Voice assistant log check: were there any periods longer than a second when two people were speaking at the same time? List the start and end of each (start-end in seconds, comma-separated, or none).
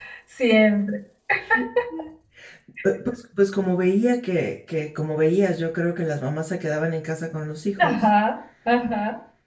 none